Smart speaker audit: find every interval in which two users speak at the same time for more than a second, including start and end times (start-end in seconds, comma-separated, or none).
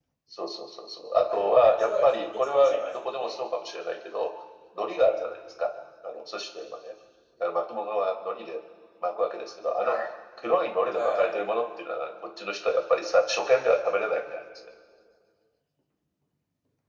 1.2-3.5